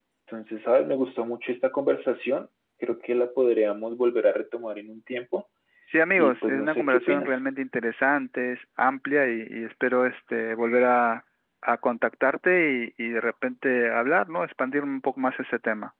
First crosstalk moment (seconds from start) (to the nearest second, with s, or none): 6 s